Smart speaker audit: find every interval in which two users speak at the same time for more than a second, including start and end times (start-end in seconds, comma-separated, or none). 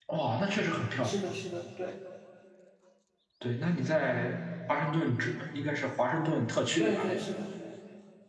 none